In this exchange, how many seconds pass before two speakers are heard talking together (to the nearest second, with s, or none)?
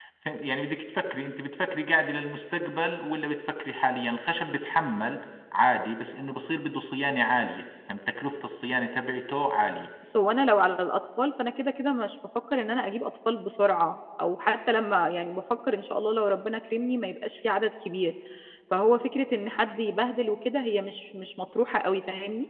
none